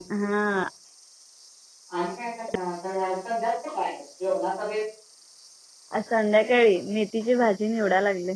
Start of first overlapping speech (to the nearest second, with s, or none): none